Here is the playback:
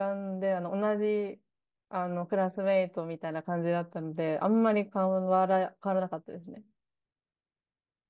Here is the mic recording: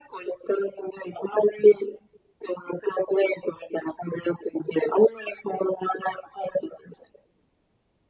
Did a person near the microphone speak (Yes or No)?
No